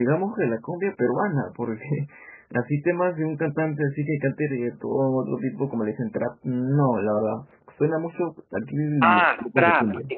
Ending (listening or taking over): taking over